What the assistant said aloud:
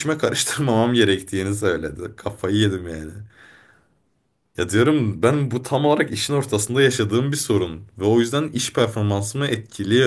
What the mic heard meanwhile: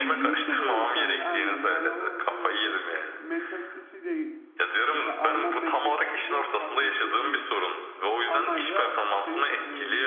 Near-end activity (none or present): present